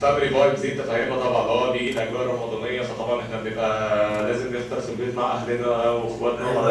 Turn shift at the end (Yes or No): Yes